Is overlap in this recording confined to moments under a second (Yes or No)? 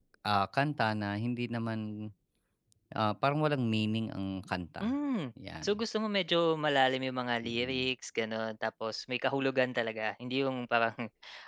Yes